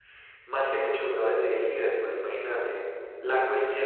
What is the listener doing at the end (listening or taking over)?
listening